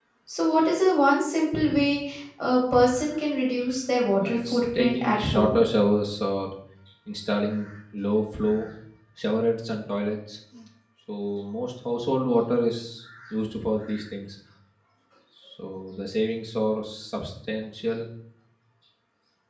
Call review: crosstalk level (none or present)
present